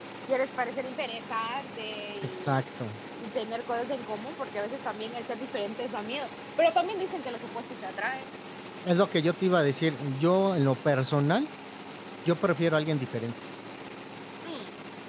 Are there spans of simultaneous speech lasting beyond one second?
No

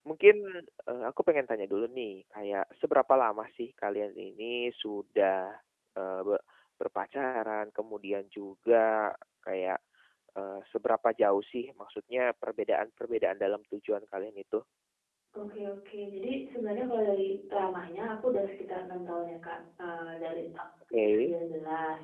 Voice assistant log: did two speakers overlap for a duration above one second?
No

